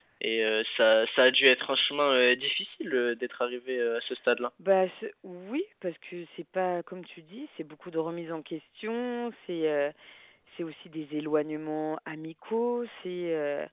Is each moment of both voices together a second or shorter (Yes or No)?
Yes